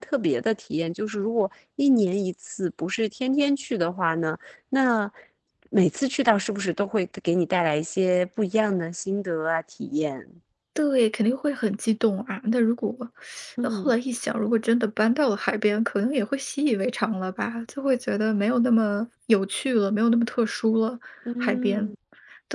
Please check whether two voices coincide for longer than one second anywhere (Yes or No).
No